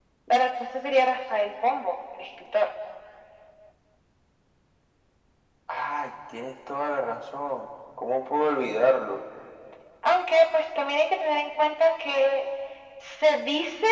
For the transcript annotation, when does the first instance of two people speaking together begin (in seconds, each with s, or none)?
none